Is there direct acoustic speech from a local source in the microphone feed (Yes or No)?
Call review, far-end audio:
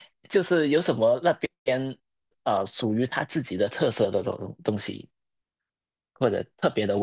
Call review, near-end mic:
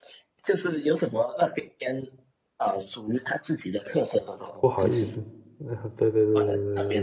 Yes